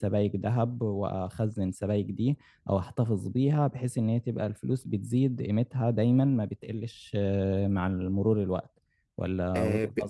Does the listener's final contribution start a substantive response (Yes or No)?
Yes